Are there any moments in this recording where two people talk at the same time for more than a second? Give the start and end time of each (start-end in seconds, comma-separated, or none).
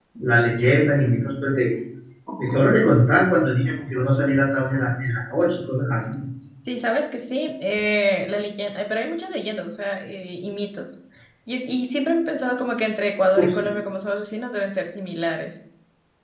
none